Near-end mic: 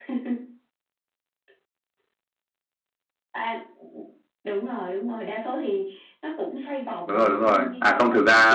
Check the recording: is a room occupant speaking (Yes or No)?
Yes